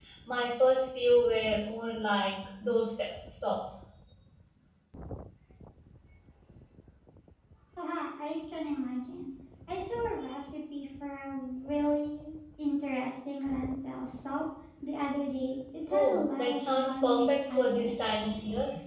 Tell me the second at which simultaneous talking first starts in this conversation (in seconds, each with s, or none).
15.9 s